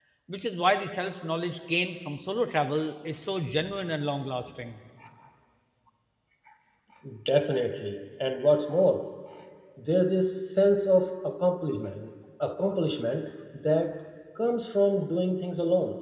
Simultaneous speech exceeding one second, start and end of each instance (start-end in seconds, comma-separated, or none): none